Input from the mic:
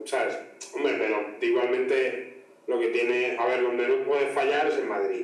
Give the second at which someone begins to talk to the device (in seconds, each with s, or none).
none